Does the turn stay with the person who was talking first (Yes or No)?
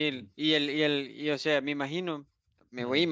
Yes